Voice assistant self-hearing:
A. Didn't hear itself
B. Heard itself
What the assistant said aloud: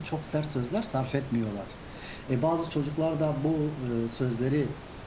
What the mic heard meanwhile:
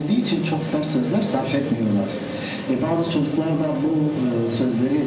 B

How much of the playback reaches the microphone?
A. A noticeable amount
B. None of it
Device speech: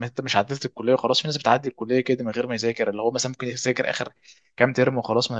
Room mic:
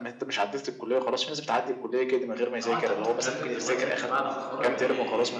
A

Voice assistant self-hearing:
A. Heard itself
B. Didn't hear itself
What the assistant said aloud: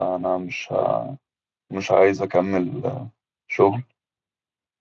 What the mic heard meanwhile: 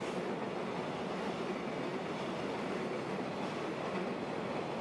B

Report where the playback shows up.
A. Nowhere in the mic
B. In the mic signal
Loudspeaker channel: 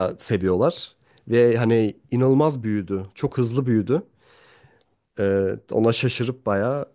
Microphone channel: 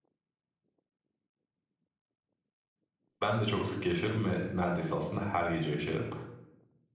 A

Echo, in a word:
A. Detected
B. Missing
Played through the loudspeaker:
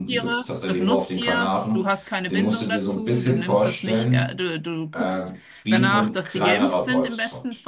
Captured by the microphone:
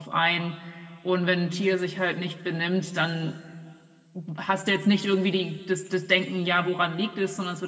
B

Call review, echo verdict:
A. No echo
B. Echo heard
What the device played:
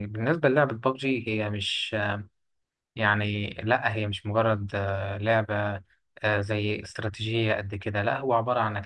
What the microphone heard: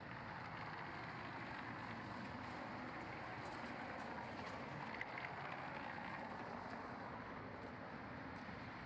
A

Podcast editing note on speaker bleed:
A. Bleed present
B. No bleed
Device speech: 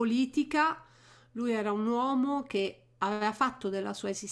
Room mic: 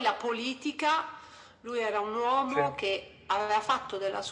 A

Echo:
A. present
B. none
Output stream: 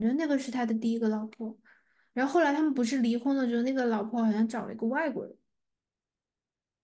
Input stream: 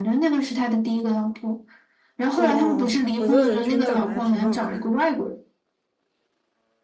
A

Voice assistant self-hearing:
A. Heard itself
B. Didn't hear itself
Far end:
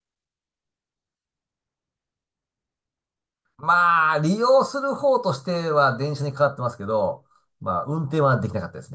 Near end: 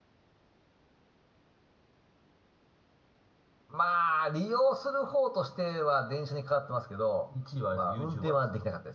A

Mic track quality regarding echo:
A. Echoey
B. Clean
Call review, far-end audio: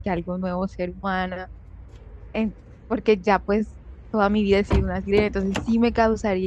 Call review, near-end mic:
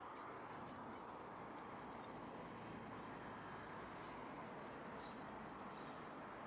B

